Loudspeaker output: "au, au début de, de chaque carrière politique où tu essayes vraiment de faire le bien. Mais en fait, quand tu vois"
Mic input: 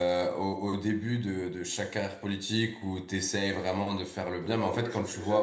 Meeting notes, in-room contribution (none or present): present